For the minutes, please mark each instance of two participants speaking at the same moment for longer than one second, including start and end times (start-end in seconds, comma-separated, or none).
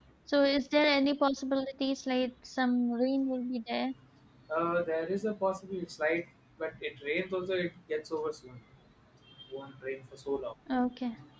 none